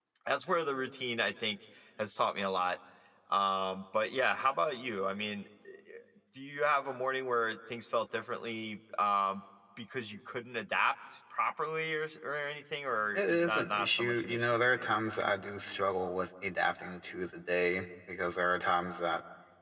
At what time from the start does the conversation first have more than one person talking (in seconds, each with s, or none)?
13.2 s